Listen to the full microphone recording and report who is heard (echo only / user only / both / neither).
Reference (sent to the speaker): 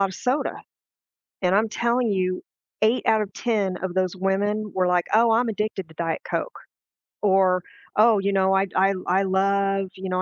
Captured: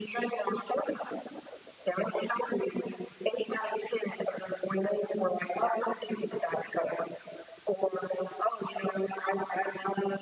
echo only